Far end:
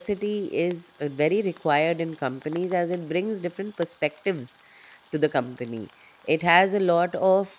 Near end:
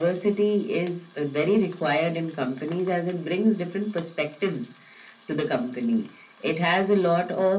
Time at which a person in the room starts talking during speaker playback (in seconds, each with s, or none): none